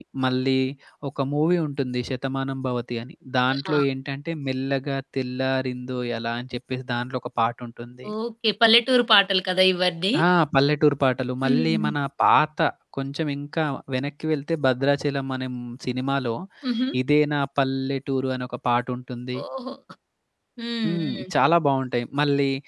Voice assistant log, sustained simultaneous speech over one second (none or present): none